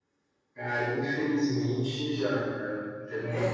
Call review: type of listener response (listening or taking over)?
listening